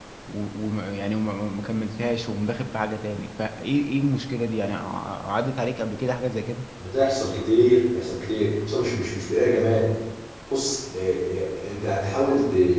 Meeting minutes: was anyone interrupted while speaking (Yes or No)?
No